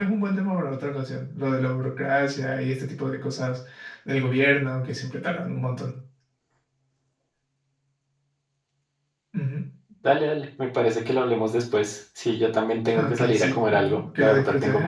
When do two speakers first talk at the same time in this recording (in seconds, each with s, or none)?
12.8 s